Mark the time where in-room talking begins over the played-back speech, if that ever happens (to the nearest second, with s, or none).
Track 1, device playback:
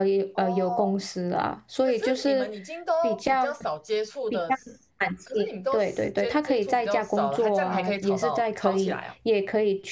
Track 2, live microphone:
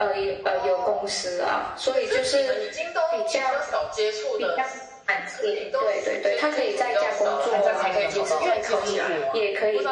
8 s